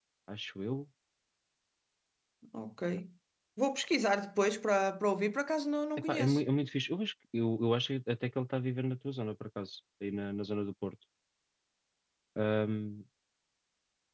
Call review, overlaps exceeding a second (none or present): none